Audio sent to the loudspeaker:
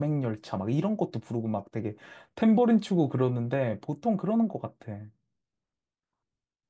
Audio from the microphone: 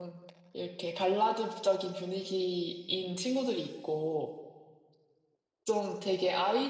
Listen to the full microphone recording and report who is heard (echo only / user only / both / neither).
user only